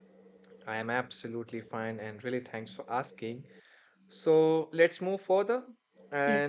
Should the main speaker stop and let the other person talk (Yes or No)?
No